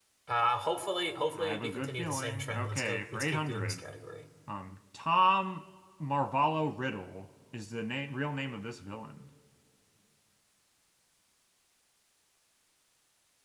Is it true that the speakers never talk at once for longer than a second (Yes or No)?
No